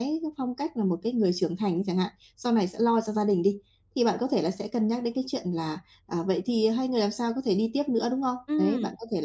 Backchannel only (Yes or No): Yes